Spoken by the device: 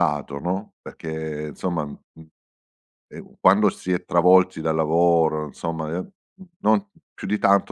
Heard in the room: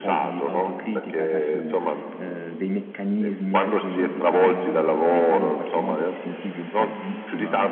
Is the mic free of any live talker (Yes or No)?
No